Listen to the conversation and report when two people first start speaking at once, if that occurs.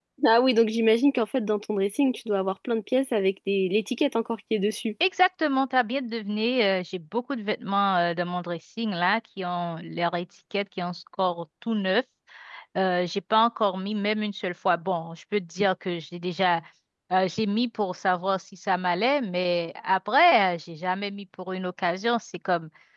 none

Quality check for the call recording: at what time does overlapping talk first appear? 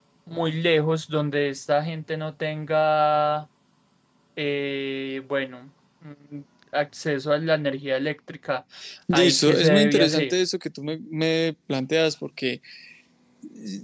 9.1 s

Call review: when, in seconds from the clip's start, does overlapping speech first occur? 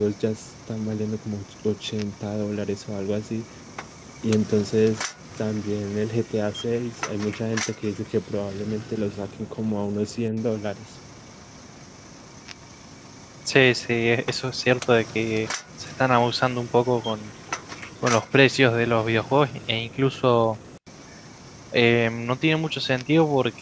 none

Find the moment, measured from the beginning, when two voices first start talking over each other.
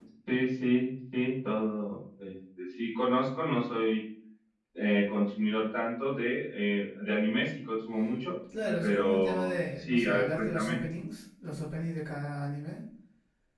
8.8 s

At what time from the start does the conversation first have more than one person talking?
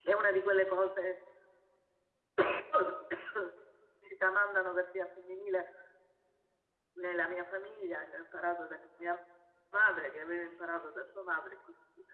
none

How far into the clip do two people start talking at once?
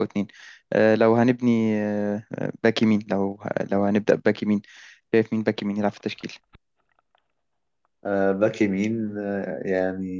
none

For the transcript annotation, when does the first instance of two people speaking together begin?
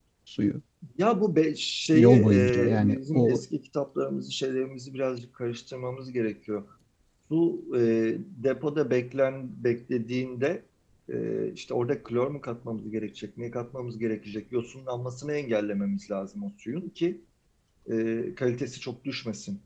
1.9 s

